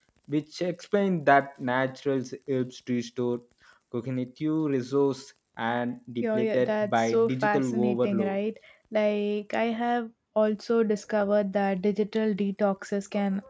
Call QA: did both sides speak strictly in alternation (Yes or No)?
No